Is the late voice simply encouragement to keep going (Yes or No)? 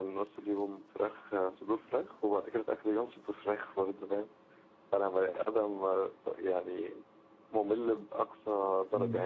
No